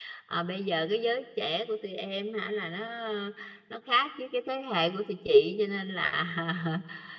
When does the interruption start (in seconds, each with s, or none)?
none